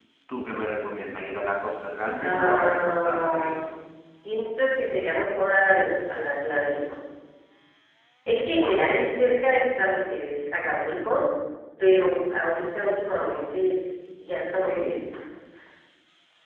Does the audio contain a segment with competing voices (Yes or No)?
Yes